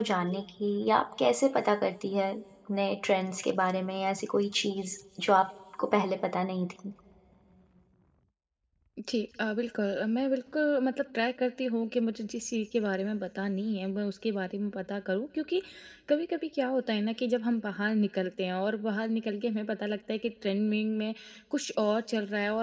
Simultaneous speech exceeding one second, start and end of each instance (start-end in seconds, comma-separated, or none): none